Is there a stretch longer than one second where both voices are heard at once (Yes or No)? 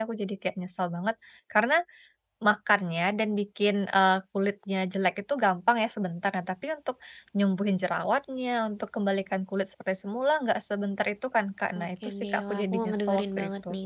Yes